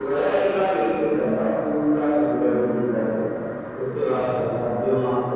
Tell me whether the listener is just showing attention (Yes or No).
Yes